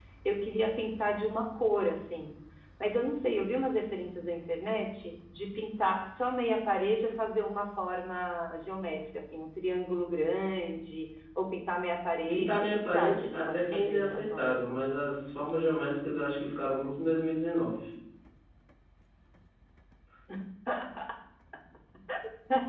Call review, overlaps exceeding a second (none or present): present